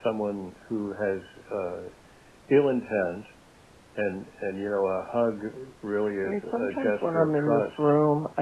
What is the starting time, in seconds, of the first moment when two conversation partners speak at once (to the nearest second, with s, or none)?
6 s